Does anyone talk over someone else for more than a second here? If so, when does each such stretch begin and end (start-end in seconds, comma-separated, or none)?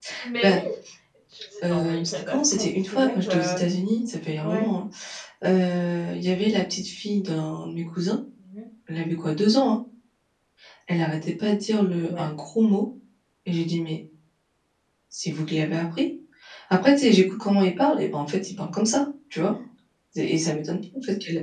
1.6-3.5